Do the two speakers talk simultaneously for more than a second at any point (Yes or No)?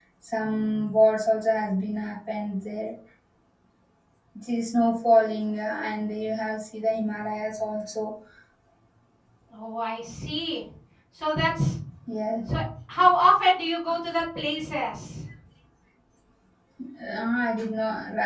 No